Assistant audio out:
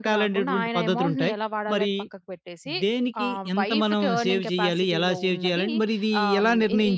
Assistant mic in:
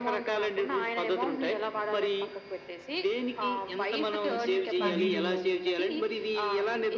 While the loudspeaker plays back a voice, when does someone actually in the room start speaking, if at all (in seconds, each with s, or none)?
4.3 s